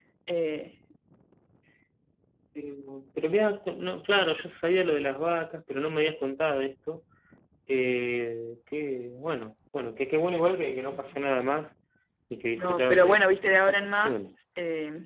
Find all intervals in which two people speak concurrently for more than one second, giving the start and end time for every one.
12.6-14.3

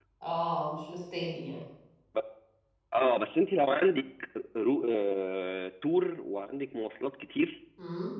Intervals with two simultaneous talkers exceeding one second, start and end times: none

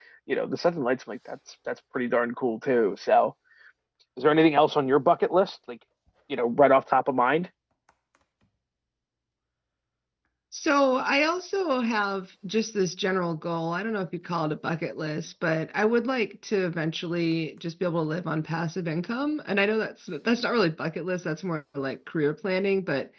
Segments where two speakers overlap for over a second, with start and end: none

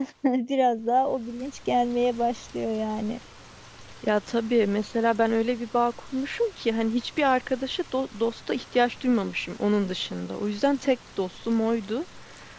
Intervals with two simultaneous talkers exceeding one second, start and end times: none

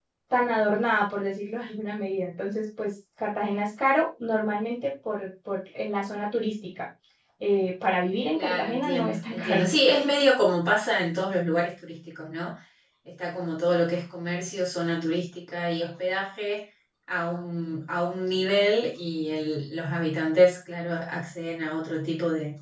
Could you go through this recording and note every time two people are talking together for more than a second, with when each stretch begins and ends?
8.3-9.6

